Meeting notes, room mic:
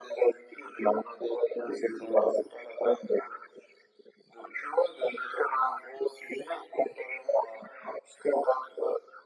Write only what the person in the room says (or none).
none